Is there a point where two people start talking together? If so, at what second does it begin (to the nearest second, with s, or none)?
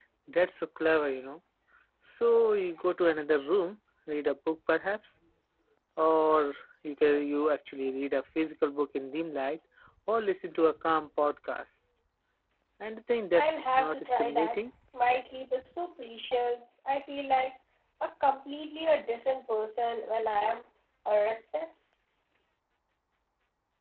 13 s